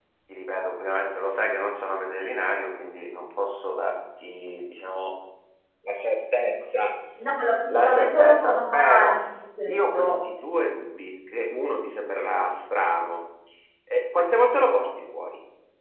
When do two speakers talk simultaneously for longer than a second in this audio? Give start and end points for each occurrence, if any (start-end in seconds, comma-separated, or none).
7.7-9.2